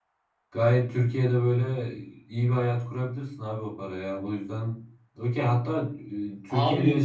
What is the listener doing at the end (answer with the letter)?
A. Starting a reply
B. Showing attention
A